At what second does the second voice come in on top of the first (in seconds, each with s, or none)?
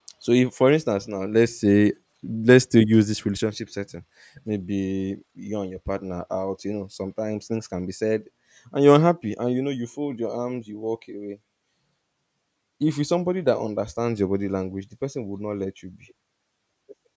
none